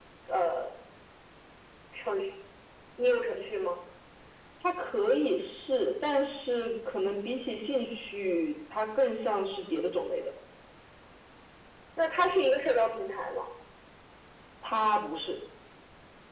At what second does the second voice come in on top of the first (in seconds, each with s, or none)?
none